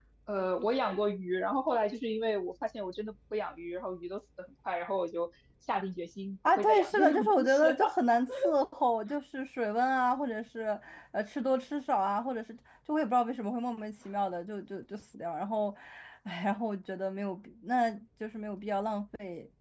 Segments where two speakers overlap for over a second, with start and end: 6.4-8.0

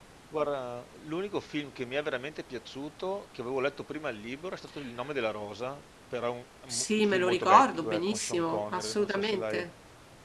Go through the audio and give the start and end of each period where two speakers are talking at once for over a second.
6.7-9.6

